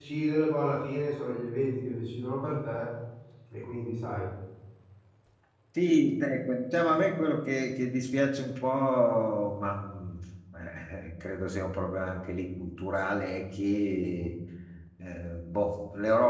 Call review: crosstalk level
none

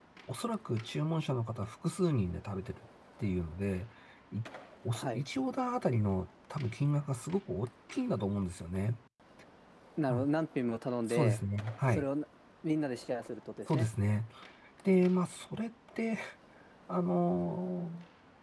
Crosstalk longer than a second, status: none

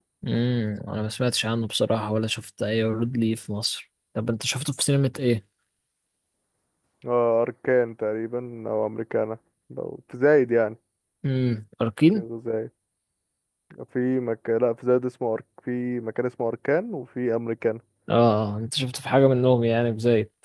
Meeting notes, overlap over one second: none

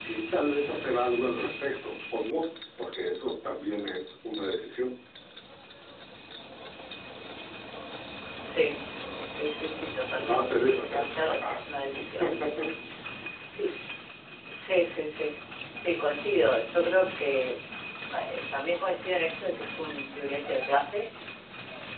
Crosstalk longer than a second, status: present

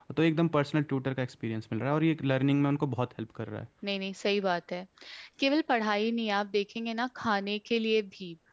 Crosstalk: none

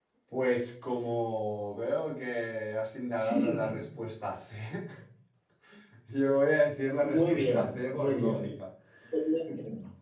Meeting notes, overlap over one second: present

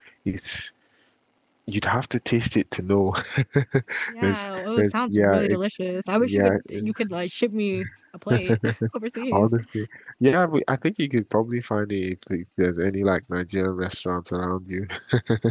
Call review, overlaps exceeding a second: present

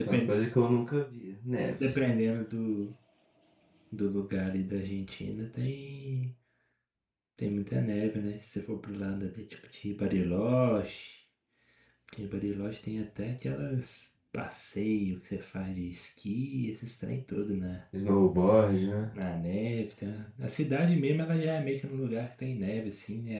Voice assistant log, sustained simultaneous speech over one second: none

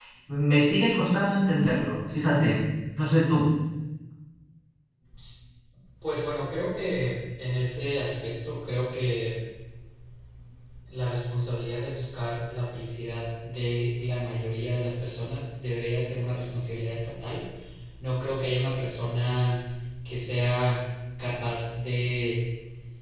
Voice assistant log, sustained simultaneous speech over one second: none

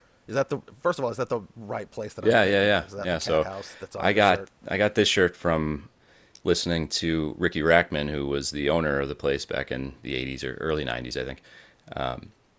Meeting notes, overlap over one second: present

